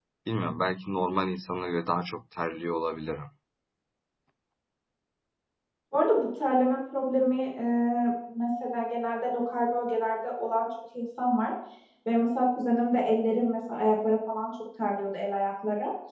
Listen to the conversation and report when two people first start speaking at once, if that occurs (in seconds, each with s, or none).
none